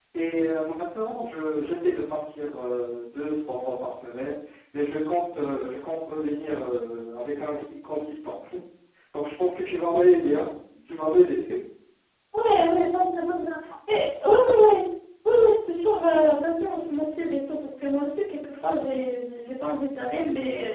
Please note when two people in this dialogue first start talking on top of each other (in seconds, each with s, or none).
none